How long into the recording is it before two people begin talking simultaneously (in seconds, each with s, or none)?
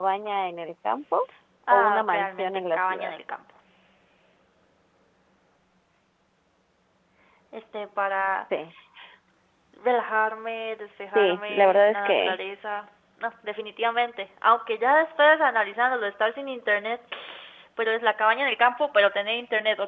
1.7 s